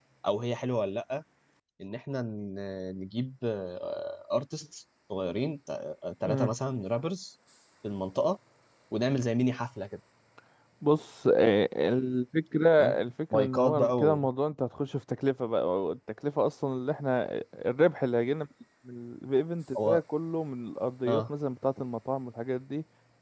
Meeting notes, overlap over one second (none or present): present